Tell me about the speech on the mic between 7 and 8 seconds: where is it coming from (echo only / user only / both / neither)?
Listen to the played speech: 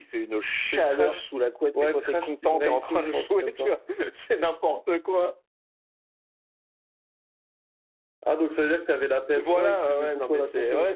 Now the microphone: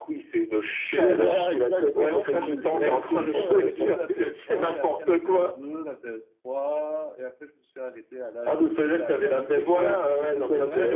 user only